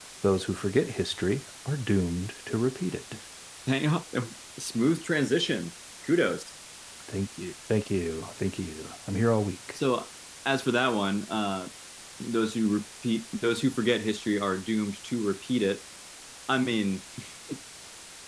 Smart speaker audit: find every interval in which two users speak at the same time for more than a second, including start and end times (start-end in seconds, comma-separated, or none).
none